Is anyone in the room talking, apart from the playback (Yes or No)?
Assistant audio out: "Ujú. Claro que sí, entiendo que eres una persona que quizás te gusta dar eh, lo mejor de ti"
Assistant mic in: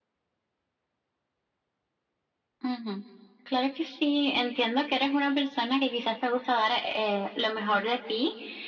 No